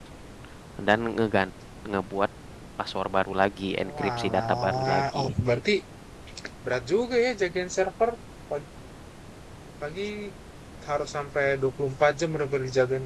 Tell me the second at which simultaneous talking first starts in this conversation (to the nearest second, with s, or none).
4 s